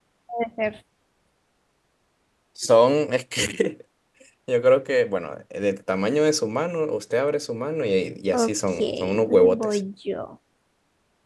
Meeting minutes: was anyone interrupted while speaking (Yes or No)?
Yes